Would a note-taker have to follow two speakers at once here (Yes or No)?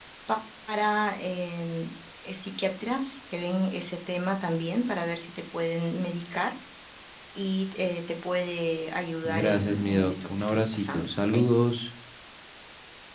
Yes